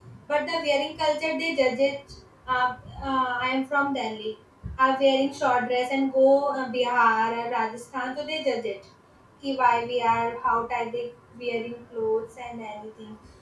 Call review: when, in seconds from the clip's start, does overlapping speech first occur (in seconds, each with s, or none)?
none